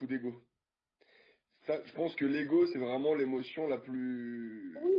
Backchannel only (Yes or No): No